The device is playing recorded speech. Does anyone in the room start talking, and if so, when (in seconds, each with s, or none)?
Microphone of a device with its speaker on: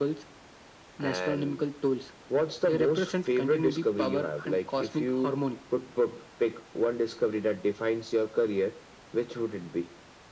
none